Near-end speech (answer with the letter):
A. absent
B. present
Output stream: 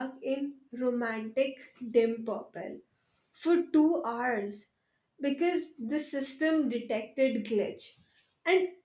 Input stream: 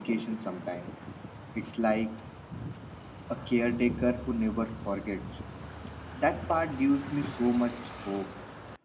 B